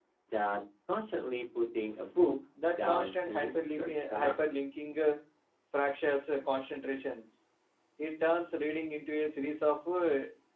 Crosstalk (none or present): present